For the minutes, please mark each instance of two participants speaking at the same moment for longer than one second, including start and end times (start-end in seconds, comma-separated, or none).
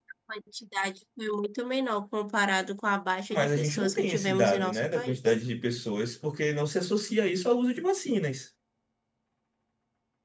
3.3-5.4